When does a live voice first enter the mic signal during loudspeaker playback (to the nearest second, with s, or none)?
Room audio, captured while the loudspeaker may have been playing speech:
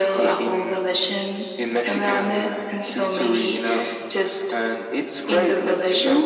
none